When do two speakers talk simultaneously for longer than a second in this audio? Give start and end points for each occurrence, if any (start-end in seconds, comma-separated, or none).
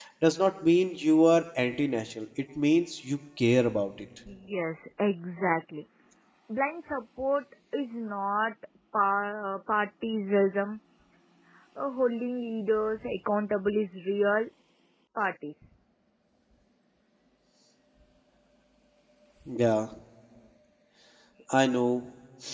none